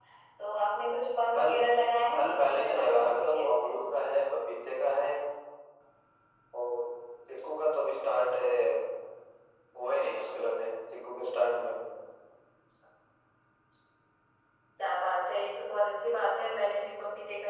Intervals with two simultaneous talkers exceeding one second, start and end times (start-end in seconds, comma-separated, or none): 2.2-3.8